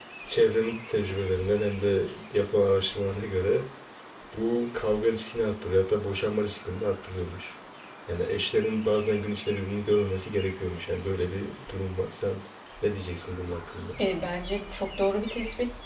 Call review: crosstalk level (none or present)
none